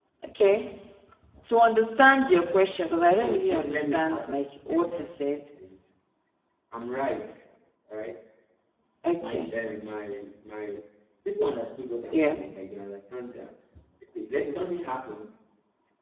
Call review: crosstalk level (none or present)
present